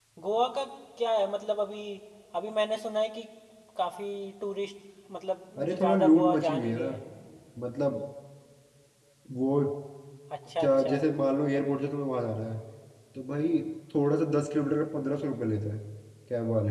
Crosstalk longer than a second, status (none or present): present